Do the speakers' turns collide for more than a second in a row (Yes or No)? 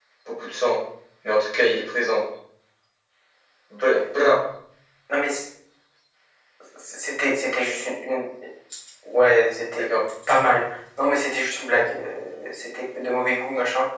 No